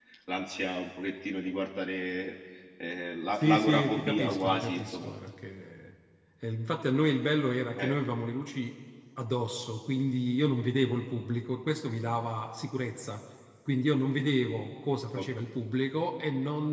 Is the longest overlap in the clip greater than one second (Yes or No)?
Yes